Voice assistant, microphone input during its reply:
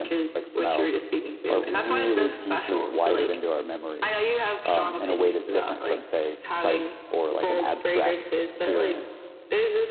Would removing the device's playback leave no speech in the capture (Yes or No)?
No